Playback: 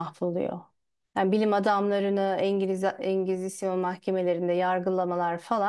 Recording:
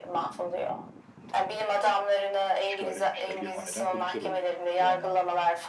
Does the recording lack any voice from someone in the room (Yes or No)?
No